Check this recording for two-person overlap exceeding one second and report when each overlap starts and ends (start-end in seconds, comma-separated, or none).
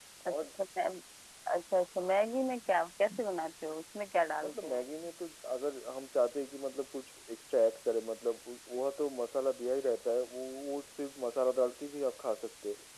none